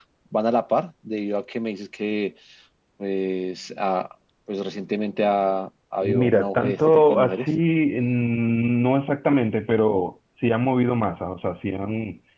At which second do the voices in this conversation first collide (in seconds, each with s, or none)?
6.0 s